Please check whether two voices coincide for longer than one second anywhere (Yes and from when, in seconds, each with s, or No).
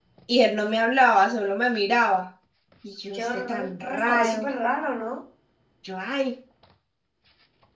Yes, from 3.1 s